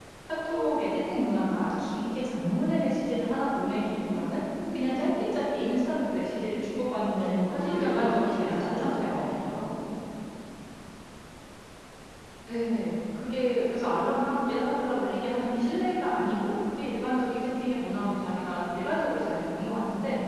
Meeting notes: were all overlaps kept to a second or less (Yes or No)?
No